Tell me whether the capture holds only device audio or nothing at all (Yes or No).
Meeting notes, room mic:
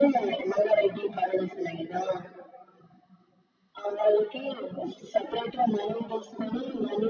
Yes